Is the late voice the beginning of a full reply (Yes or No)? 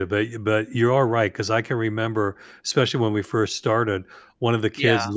No